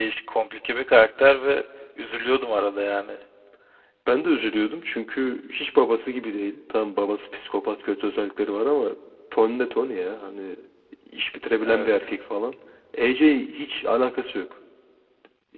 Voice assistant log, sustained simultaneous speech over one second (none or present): none